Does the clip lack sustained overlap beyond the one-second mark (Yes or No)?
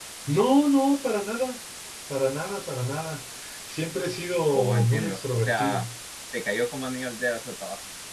No